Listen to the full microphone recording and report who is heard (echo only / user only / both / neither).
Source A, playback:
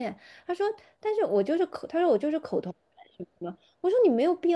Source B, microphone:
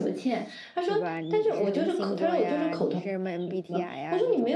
both